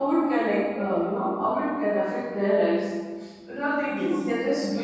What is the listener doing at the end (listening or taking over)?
listening